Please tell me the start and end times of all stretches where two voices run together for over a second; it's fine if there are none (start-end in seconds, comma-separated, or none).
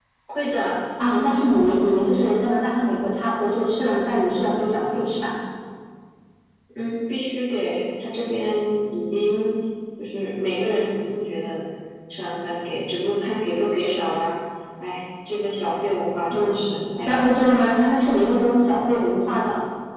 none